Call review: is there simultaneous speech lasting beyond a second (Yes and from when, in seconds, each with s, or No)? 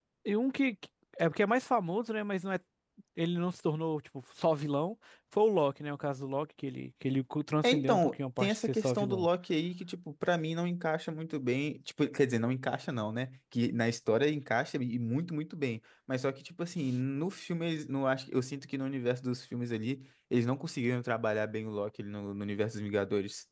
Yes, from 7.6 s